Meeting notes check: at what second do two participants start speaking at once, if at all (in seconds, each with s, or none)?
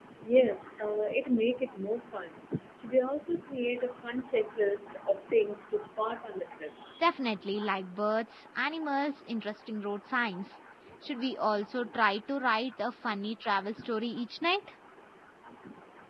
none